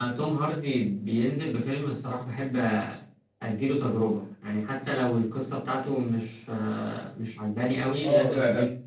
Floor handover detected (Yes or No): Yes